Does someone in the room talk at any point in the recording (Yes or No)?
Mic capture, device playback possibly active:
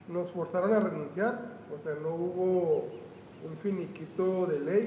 No